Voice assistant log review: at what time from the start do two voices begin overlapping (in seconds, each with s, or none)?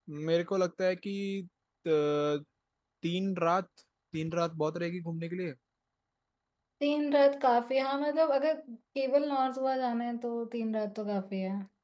none